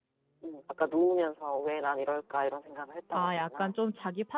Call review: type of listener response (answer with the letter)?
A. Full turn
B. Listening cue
A